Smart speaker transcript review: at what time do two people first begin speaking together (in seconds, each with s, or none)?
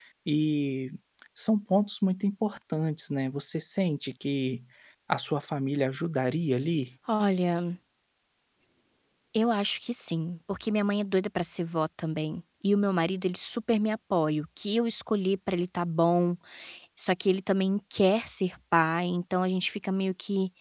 none